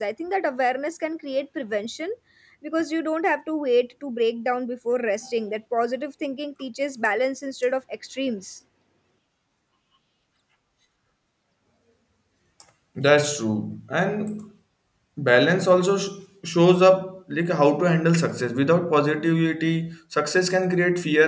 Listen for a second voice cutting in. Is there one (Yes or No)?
No